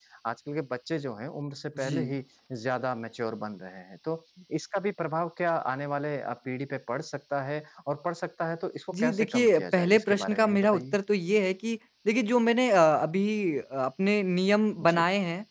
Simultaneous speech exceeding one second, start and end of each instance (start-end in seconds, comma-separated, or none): 8.9-10.8